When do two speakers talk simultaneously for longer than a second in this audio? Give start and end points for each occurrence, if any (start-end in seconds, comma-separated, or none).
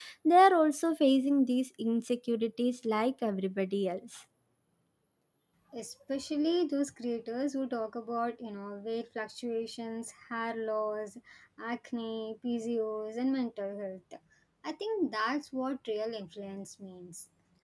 none